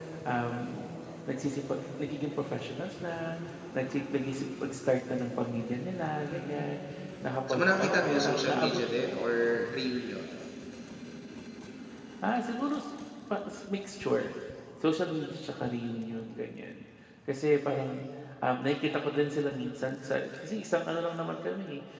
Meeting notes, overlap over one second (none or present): present